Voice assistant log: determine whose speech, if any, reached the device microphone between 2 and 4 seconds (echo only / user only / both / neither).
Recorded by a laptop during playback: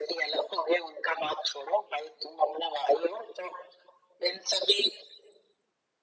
echo only